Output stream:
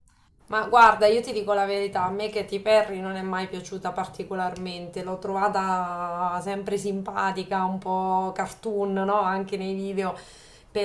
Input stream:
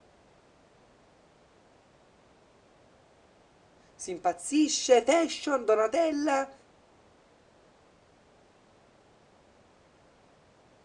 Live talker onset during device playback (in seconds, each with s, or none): 3.9 s